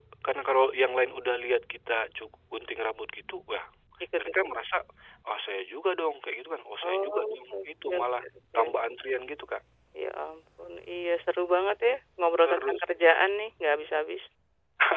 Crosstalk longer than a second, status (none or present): present